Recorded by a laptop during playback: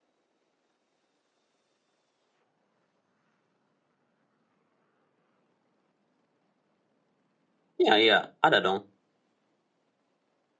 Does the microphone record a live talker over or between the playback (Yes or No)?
Yes